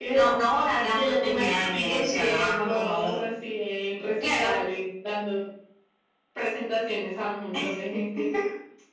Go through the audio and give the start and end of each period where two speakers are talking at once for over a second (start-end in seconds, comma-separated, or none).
0.9-3.2